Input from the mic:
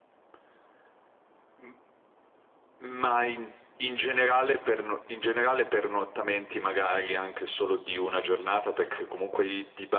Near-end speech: none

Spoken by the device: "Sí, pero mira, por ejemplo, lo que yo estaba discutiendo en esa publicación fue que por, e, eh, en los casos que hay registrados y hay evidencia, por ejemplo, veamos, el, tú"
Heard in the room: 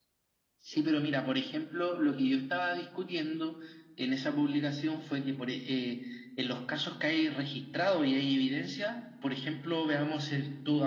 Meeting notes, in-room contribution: none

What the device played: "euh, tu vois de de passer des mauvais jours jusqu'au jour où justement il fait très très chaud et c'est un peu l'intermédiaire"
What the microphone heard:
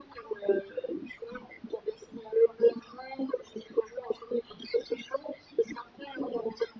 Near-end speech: none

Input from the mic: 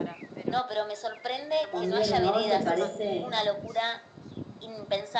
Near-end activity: present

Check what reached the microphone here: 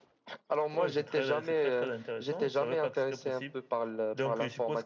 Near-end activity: none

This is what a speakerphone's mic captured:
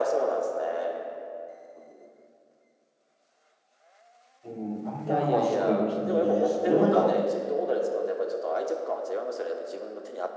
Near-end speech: present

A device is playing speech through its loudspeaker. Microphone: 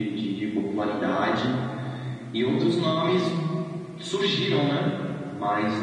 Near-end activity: none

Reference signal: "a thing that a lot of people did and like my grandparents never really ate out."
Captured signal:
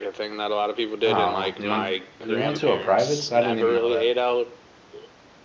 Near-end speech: present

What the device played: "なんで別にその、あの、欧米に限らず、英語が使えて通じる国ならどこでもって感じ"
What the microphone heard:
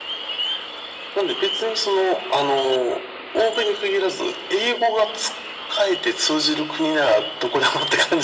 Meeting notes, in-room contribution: none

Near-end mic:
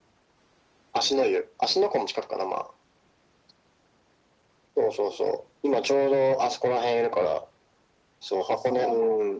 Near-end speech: none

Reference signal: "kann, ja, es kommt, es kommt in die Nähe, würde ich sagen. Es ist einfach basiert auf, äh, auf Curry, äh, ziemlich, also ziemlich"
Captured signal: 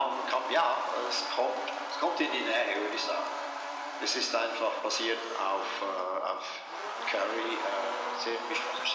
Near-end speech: none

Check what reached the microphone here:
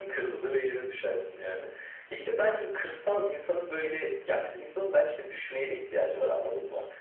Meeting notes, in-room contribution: none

